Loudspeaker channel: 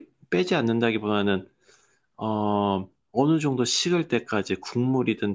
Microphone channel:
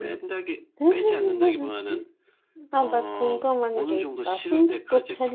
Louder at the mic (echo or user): user